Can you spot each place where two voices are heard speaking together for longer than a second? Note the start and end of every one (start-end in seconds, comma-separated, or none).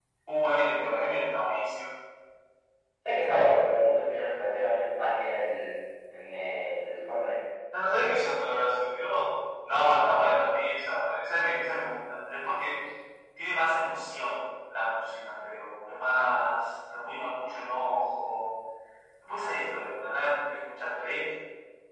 none